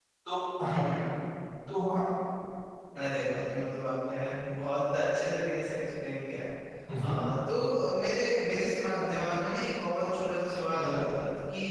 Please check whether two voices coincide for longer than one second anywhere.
No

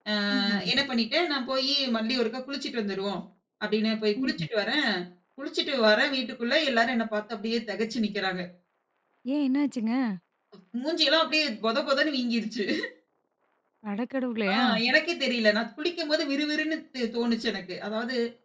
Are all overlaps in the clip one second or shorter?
Yes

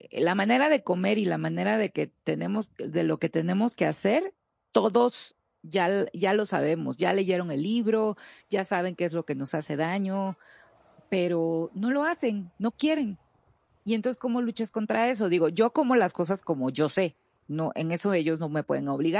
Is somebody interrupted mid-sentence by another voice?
No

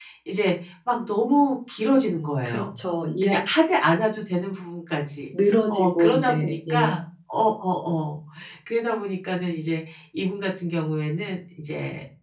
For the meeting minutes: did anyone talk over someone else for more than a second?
Yes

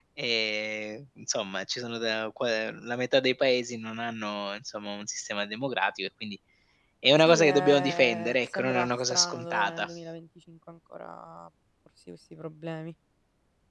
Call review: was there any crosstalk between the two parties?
Yes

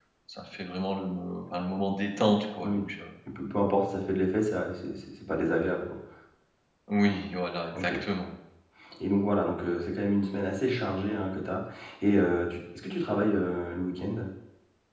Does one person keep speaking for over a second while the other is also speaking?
No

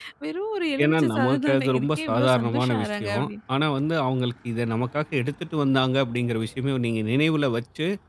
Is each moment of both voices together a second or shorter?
No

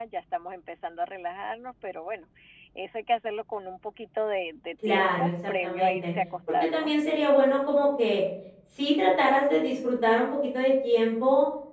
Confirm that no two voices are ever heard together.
No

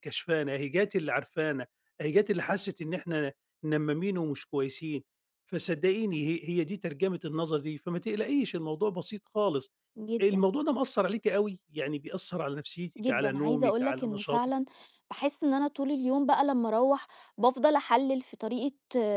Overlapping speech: Yes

